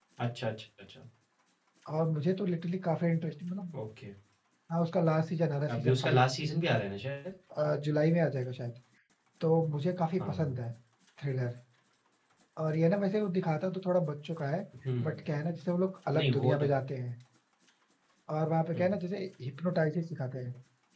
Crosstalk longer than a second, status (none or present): none